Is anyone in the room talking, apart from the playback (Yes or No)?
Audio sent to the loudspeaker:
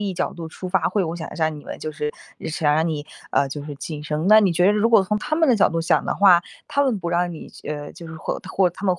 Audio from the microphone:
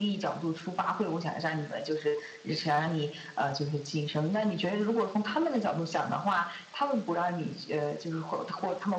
No